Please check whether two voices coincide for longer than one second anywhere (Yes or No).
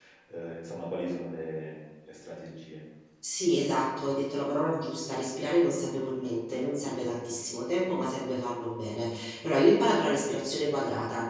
No